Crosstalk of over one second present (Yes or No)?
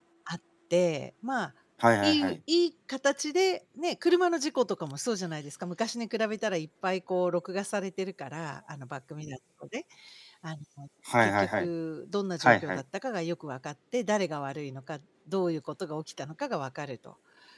No